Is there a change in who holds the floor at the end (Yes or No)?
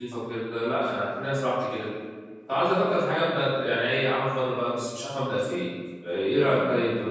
Yes